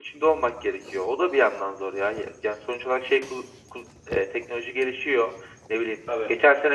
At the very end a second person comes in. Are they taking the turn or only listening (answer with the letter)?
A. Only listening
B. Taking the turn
A